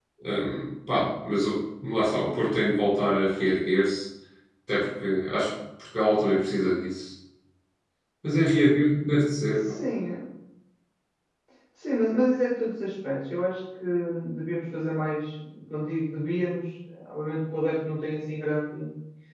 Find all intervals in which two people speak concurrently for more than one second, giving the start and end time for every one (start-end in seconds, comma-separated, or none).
none